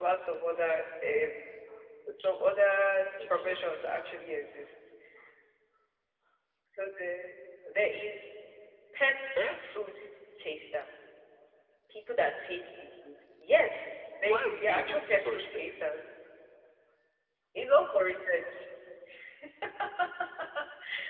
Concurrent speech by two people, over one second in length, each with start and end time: 14.3-15.7

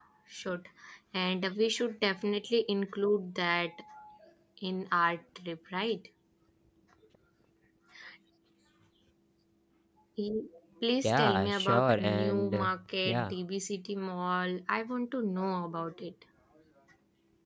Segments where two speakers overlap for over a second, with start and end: 11.0-12.7

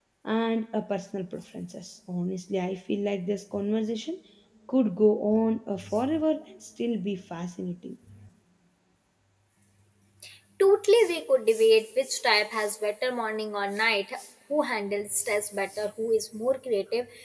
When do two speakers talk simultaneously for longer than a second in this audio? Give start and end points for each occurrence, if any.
none

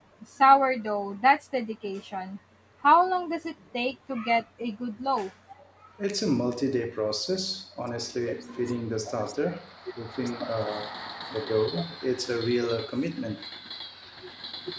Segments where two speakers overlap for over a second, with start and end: none

